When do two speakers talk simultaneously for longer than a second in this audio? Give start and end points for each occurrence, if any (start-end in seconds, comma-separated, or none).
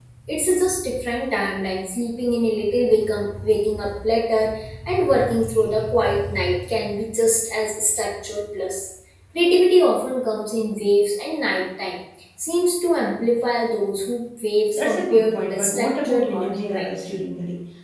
14.7-16.9